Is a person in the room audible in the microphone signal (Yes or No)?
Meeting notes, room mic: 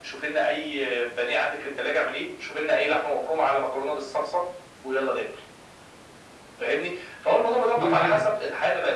Yes